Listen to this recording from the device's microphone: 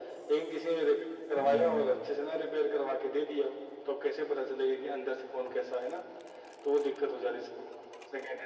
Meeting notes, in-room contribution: present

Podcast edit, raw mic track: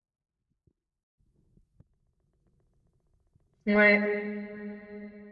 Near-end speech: present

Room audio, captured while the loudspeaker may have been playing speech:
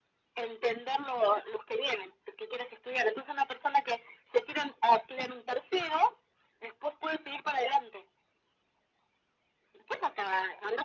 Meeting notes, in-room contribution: none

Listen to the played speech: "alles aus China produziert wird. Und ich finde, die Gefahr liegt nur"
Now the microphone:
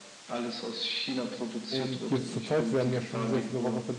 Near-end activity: present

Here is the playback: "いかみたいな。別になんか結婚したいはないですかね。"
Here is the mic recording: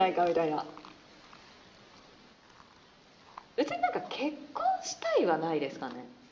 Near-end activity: none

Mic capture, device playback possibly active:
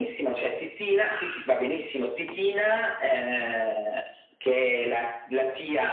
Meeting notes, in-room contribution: none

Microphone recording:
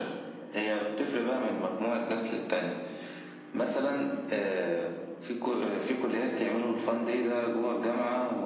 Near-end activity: none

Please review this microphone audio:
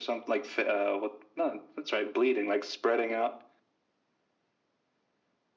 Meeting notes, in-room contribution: none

